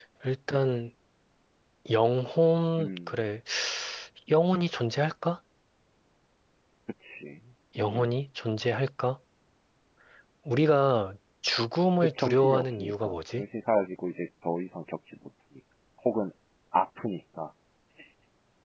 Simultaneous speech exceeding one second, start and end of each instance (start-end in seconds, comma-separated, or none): 12.0-13.4